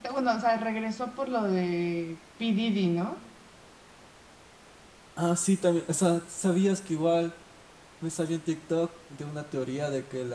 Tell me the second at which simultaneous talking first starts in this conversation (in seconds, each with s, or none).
none